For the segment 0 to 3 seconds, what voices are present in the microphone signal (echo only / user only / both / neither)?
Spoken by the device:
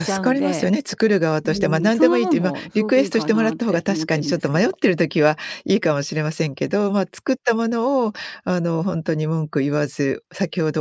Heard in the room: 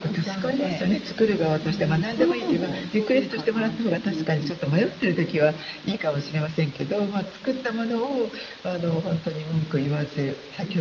echo only